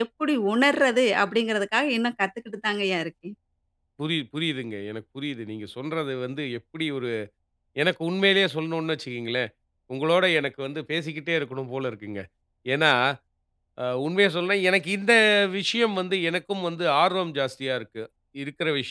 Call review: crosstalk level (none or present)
none